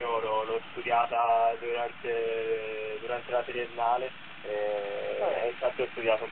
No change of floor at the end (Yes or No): Yes